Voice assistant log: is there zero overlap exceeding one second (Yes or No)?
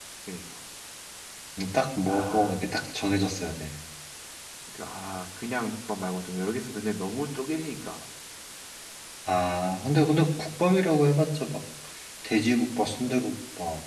Yes